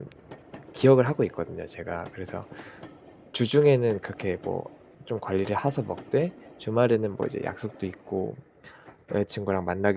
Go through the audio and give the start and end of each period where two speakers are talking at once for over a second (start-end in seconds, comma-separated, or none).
none